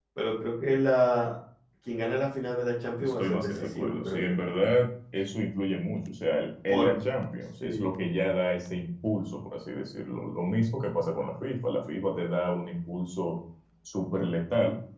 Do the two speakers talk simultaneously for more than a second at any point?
Yes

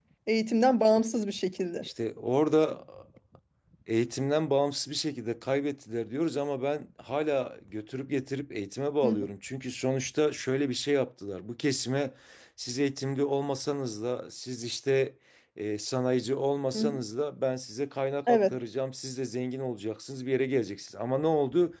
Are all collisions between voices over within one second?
Yes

